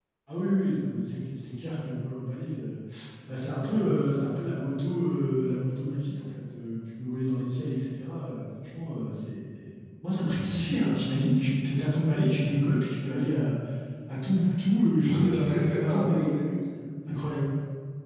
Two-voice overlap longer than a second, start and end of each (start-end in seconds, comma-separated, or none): 15.0-16.6